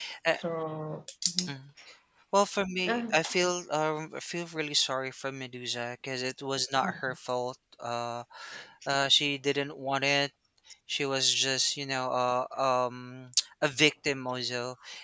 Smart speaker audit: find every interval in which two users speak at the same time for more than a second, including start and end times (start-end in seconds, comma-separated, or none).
none